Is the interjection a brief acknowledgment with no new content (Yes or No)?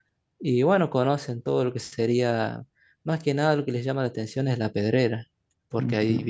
Yes